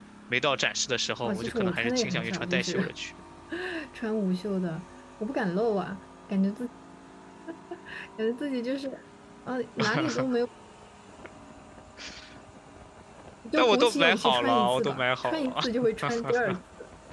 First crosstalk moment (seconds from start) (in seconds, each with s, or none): 1.2 s